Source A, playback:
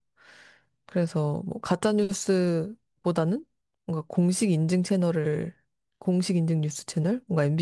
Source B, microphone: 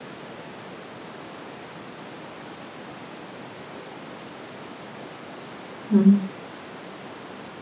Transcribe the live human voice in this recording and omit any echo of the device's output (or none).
음,